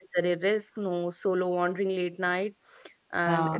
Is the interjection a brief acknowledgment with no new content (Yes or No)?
Yes